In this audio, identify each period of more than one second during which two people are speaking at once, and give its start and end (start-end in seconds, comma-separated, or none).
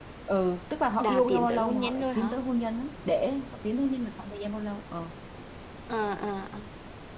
1.0-2.3